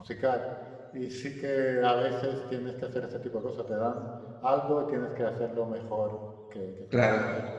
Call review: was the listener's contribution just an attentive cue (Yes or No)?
No